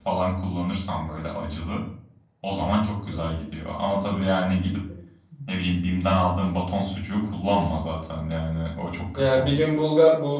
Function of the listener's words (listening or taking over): taking over